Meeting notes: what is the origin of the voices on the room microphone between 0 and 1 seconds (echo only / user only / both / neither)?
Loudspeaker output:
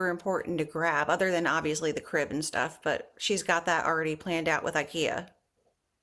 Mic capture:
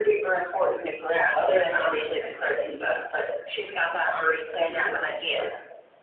echo only